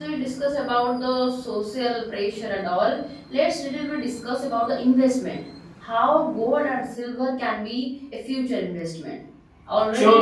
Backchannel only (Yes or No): Yes